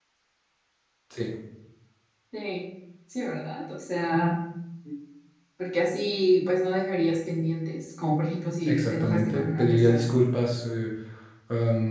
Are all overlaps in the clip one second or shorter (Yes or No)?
No